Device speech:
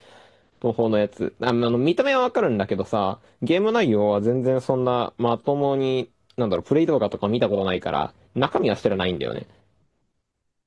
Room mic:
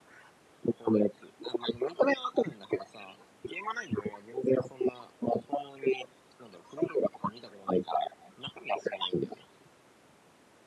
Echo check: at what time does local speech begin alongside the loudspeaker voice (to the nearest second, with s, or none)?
none